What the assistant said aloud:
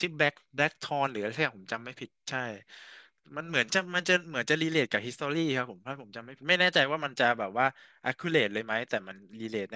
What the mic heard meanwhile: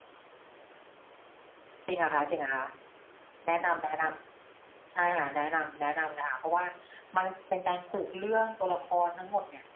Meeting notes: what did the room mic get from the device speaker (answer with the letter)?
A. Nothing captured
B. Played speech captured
A